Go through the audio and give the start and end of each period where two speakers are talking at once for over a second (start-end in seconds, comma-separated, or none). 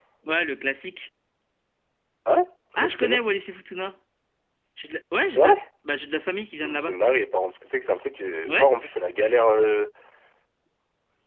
none